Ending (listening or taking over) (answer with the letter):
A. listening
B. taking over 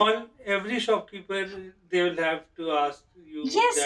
B